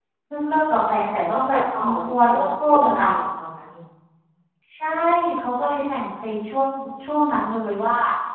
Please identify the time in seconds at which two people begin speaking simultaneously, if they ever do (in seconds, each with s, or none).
1.3 s